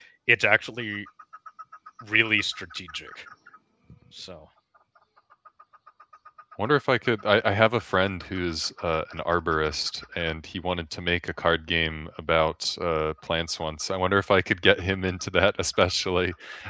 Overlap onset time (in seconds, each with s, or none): none